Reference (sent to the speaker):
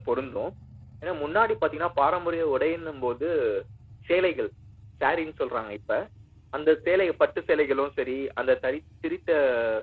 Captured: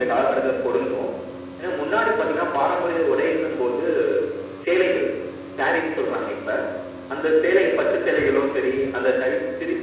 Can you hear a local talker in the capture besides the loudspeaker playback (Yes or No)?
No